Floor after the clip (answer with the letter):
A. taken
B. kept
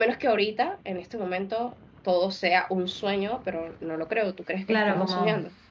A